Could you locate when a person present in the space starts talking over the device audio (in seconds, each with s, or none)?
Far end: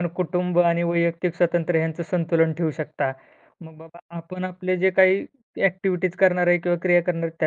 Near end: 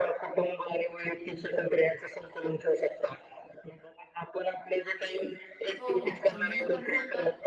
5.8 s